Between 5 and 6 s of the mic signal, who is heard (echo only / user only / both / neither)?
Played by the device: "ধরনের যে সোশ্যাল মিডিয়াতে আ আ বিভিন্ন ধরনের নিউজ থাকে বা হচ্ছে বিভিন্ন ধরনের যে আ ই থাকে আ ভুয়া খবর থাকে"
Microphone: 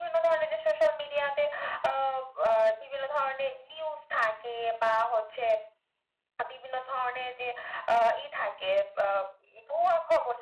echo only